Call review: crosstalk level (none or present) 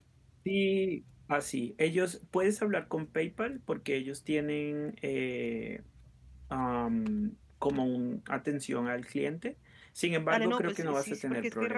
present